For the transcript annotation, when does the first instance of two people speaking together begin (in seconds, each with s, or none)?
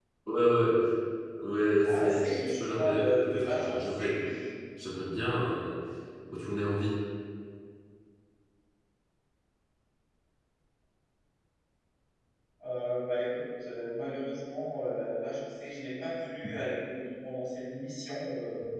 1.8 s